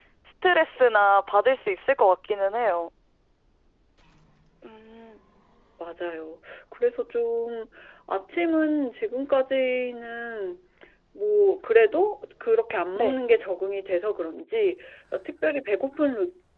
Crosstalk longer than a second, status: none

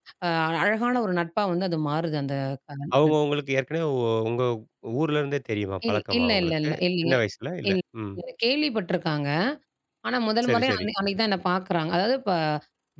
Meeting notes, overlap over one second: present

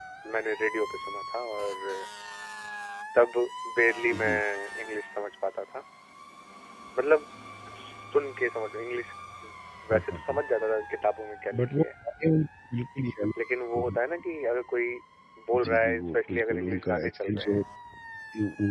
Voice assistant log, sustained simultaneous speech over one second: present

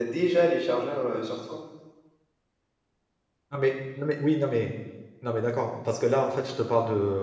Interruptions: none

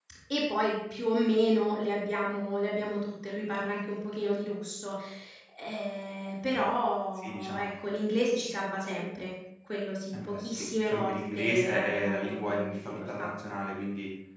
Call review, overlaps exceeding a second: present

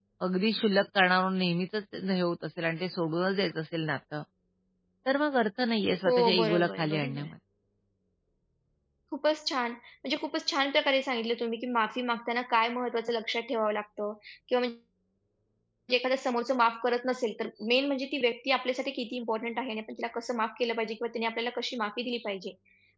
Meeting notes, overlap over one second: present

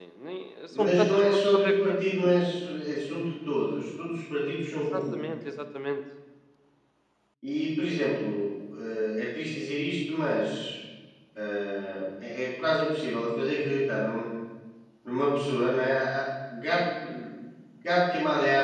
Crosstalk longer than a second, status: present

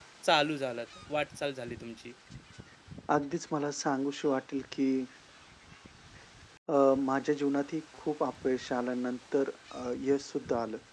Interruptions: none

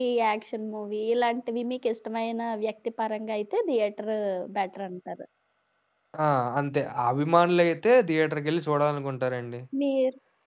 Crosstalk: none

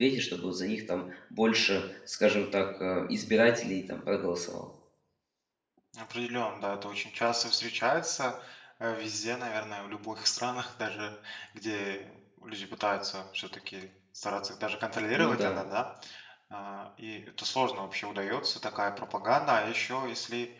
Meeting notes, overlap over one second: none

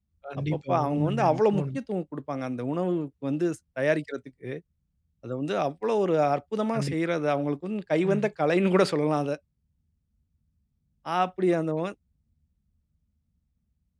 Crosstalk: present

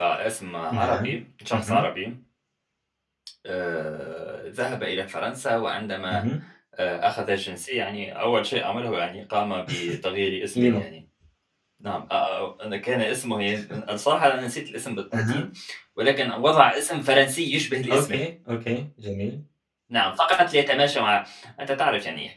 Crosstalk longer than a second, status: none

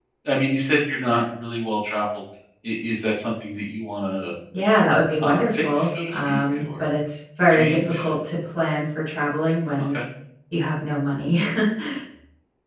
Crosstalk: present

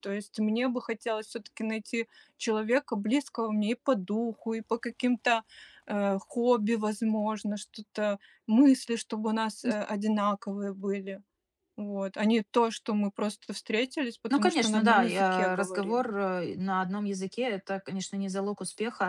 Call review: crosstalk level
present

